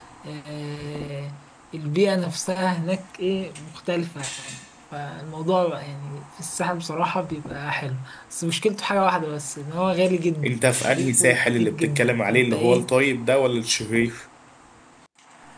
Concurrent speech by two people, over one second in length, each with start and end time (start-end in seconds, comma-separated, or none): 10.4-12.9